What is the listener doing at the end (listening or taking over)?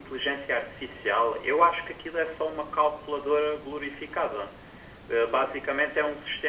listening